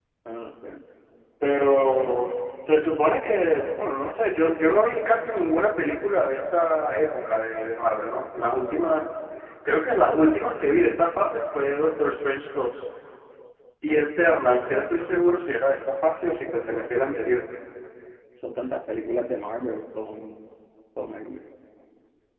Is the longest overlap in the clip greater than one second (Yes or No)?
No